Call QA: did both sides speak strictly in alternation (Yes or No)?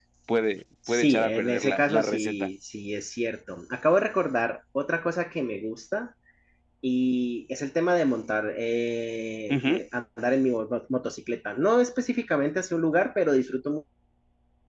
No